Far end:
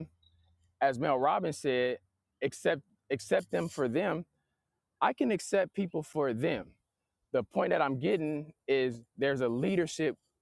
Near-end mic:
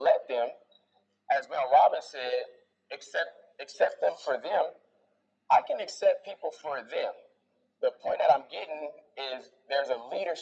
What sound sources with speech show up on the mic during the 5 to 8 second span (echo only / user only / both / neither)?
echo only